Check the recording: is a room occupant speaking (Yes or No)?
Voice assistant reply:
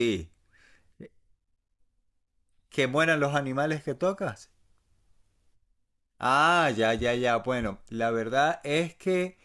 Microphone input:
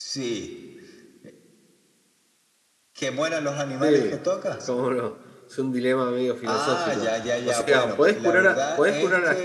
Yes